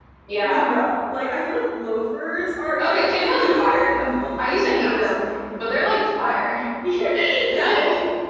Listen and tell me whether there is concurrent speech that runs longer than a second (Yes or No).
Yes